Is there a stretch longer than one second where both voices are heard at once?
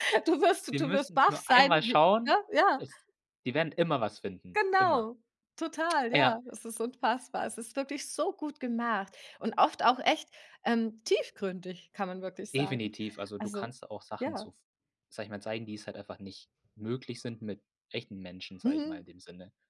Yes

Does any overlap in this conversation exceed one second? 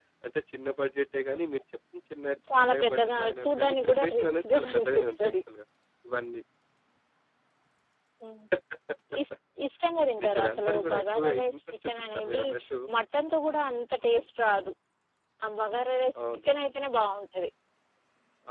Yes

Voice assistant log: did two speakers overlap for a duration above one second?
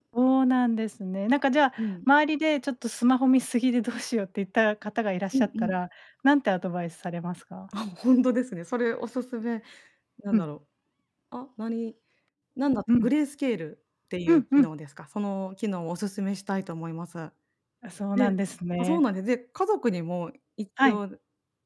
No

